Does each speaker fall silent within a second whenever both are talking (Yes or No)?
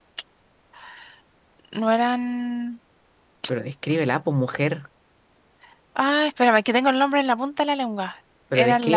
Yes